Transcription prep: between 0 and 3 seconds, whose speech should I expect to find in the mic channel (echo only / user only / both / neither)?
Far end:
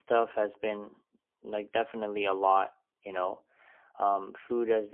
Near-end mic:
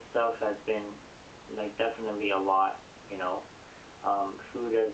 echo only